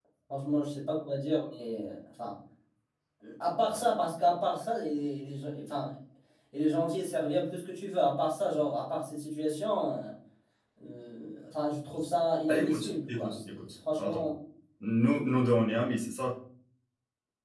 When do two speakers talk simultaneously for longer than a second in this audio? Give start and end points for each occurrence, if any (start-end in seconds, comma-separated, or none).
12.5-14.2